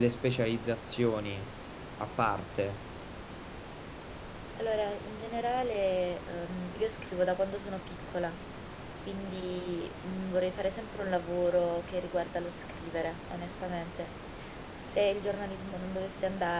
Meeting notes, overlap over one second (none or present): none